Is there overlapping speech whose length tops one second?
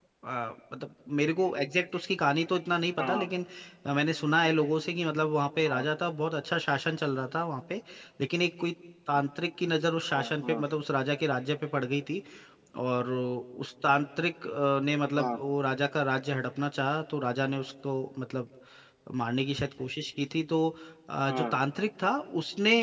No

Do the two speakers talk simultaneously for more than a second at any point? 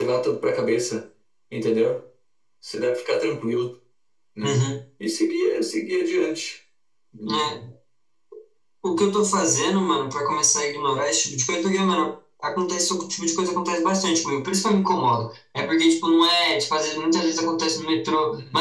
No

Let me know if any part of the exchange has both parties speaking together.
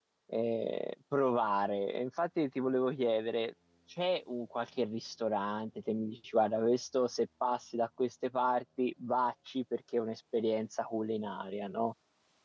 No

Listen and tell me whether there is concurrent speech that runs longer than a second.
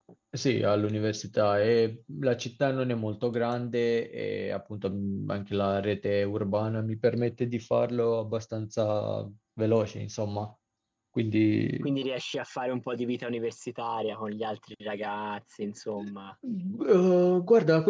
No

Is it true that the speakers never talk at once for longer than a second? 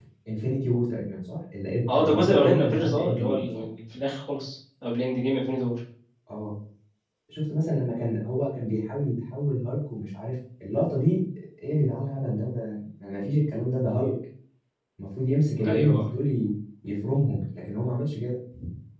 No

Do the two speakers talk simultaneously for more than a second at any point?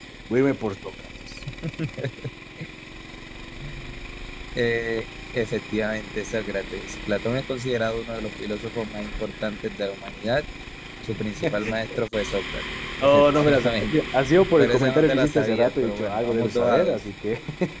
Yes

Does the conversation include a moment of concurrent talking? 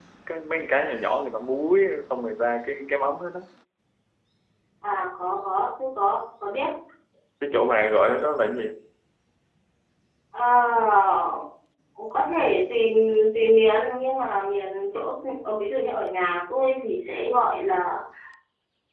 No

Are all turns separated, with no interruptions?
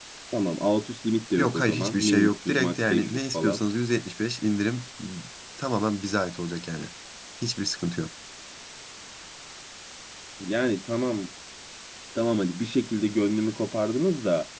No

